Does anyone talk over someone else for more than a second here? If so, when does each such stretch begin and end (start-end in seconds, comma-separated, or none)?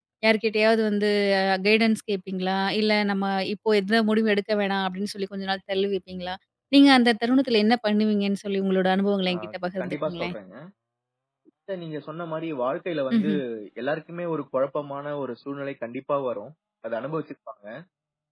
none